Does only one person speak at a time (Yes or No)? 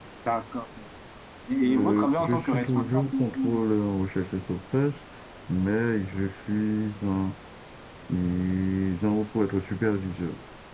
No